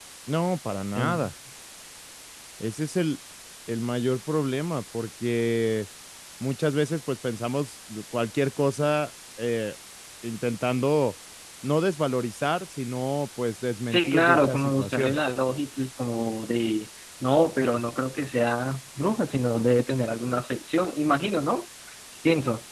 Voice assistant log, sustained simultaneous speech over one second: present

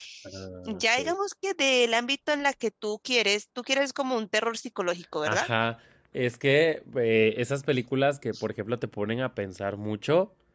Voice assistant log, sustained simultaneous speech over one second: none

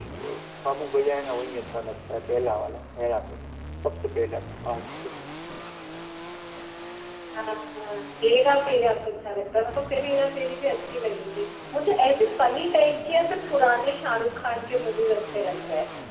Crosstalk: none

